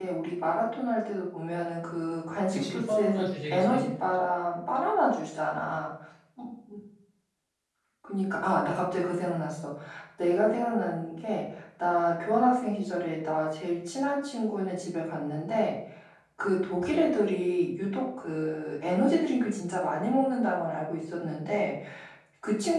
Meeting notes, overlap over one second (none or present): present